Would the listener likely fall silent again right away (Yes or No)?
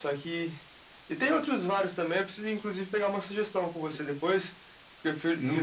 Yes